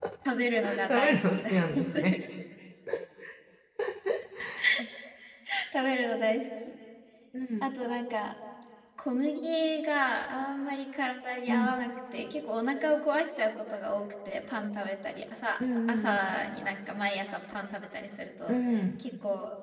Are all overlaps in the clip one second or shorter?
No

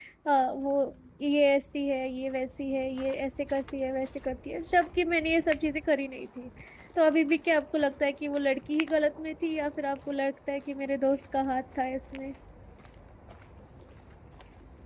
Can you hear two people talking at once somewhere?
No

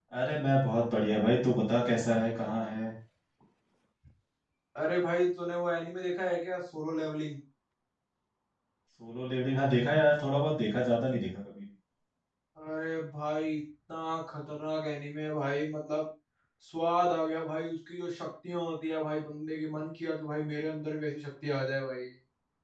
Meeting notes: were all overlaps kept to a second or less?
Yes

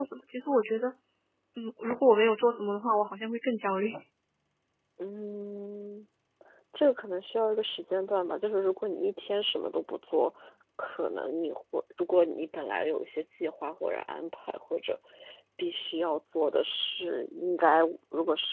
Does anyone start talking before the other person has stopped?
No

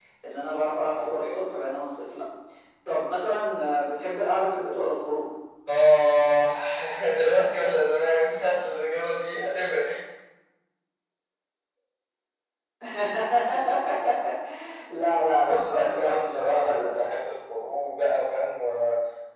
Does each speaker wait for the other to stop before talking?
No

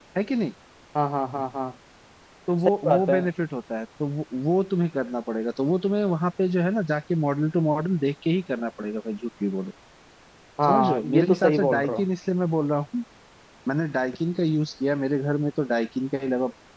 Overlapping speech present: Yes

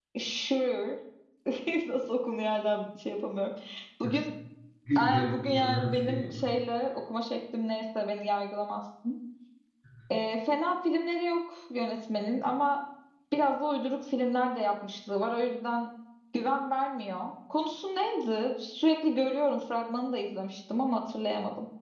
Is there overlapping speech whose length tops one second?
Yes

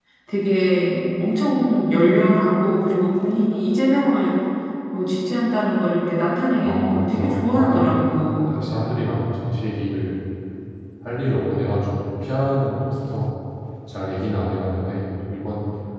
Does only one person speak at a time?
No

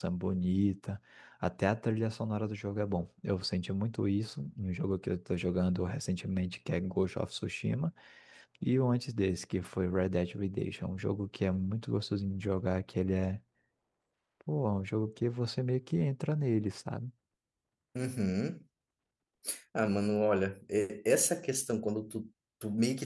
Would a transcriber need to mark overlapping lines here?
No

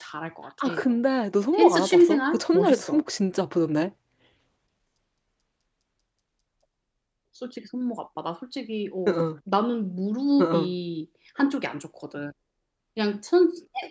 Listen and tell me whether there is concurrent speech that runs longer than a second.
Yes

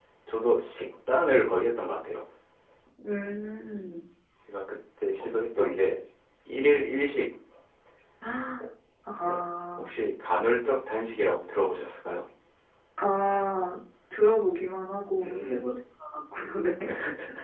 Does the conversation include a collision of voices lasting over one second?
No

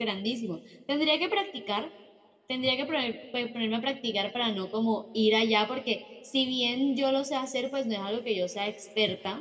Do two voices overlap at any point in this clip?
No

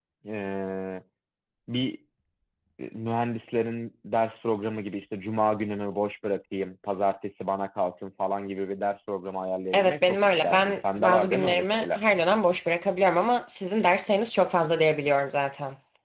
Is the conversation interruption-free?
No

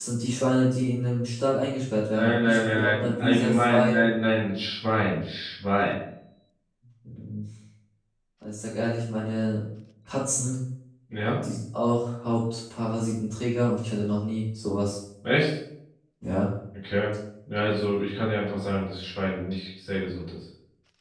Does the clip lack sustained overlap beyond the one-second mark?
No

